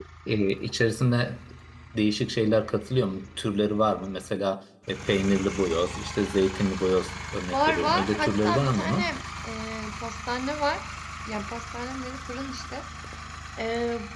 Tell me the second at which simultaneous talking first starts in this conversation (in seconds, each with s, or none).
7.5 s